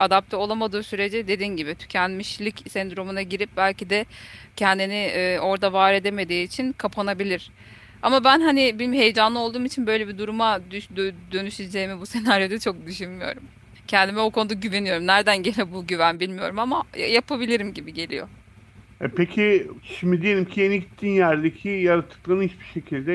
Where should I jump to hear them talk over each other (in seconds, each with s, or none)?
none